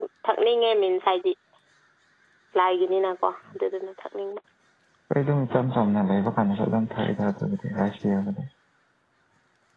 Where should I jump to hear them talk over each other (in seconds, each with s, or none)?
none